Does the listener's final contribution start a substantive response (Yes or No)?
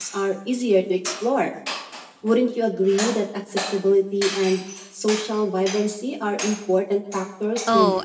Yes